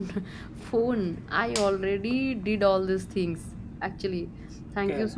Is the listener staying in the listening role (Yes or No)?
Yes